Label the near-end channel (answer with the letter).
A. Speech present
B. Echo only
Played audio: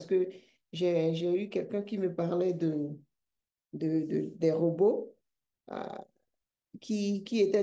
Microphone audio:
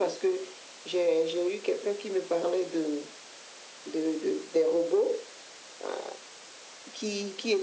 B